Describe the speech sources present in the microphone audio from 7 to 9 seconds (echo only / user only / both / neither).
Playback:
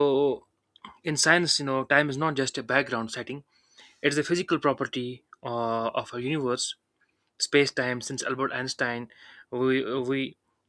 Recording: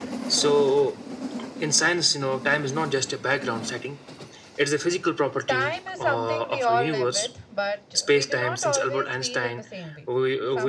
both